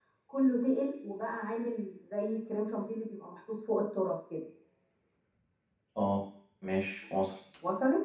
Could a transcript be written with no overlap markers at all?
Yes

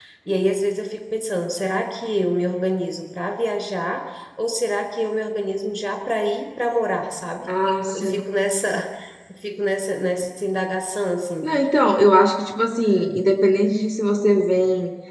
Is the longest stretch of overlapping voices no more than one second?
Yes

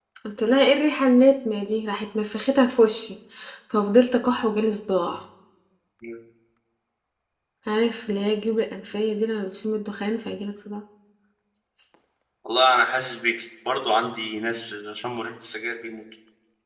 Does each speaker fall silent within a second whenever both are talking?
Yes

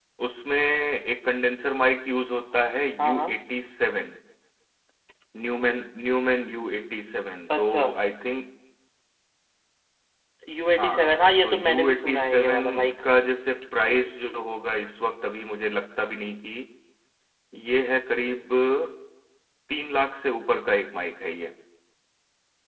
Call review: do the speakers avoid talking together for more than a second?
No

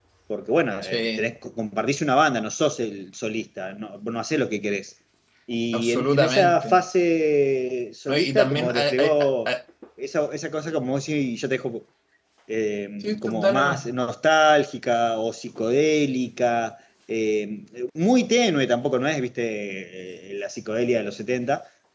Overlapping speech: Yes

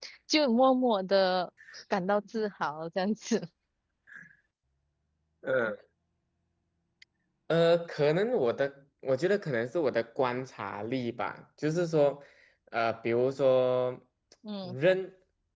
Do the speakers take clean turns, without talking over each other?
Yes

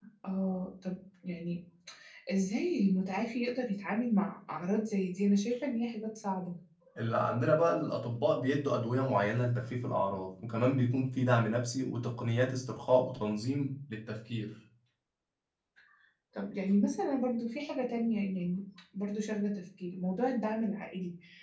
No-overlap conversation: Yes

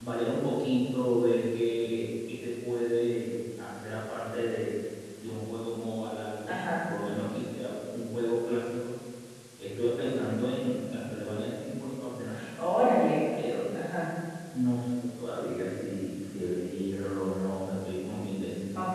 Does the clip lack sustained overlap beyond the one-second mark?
Yes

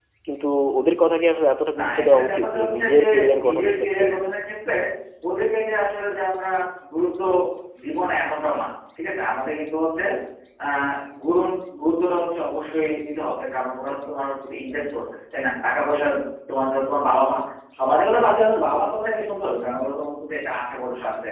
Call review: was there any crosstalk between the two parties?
Yes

